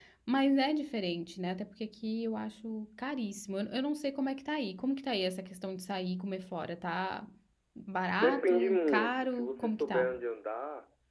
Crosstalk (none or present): present